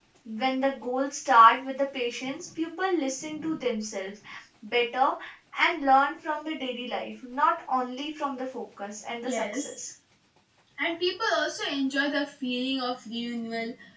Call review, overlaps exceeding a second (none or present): none